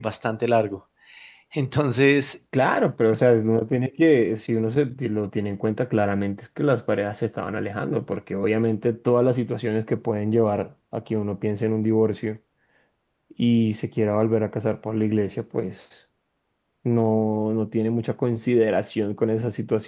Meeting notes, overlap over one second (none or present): none